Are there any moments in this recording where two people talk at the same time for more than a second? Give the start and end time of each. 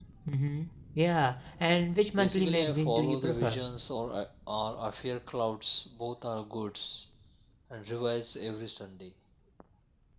2.1-3.6

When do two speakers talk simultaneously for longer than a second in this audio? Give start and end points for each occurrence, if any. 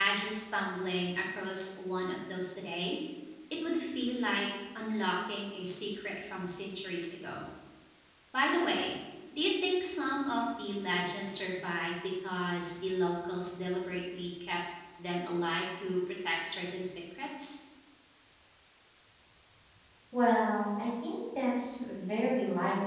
none

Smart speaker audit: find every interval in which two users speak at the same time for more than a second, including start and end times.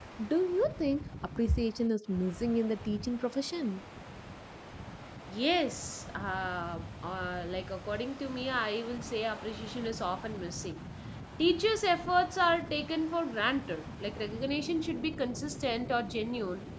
none

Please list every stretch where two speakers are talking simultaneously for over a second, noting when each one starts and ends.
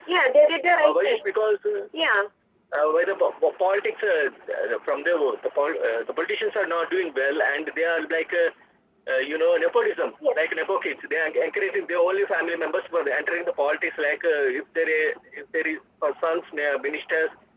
none

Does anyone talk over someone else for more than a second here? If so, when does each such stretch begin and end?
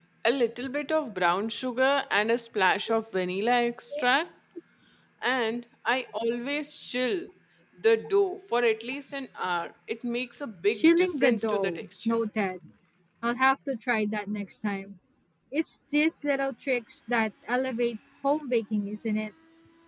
10.7-12.2

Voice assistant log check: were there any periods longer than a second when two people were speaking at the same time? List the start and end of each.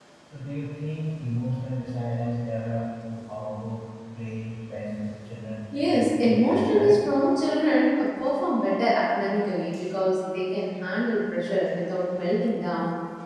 5.8-7.0

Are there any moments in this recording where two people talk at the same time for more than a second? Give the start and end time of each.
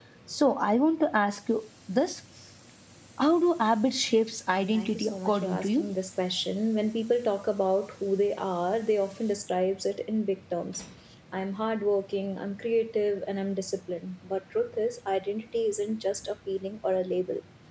4.7-6.0

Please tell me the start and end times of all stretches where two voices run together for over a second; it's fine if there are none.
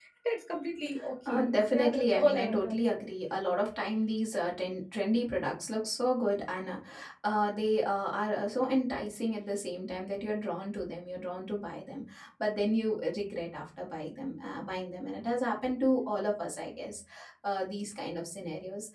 1.3-3.0

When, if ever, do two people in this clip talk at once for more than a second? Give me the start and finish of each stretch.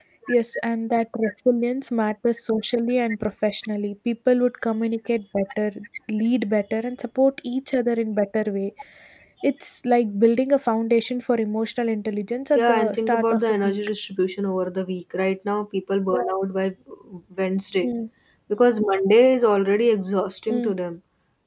12.6-13.8

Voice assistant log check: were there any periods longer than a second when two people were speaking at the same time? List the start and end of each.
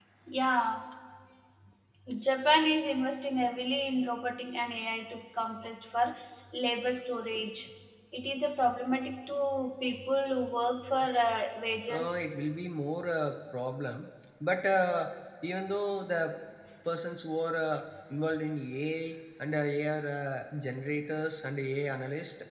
none

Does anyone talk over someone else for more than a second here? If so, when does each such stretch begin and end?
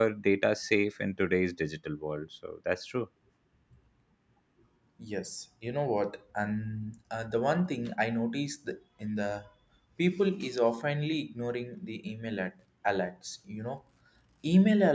none

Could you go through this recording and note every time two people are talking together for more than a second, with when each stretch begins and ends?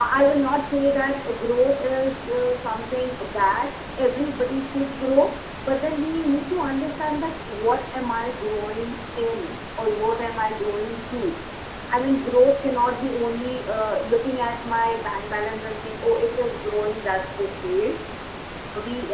none

